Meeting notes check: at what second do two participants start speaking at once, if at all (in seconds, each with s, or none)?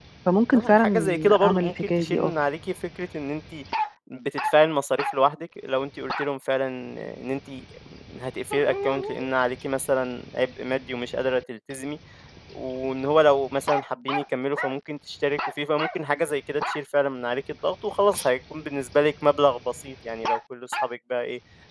0.5 s